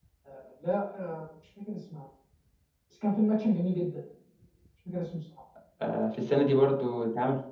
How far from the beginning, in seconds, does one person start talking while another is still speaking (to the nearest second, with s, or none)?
none